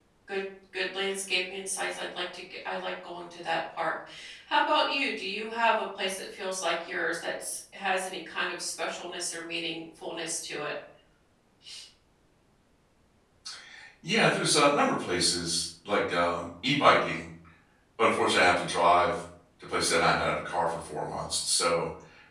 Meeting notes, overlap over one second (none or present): none